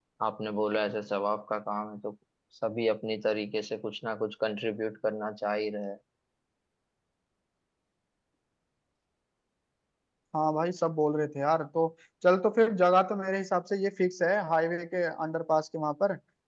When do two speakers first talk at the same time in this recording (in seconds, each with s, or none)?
none